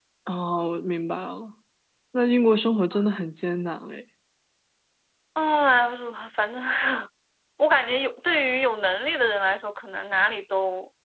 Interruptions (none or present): none